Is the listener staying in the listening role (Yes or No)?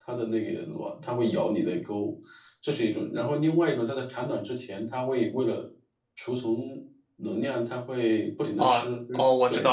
No